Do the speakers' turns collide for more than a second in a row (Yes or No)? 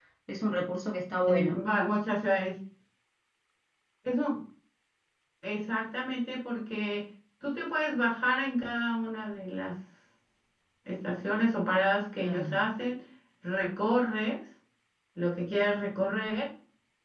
No